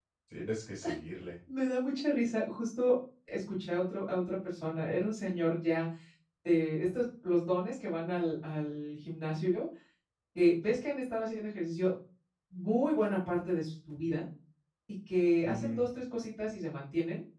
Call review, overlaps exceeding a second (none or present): none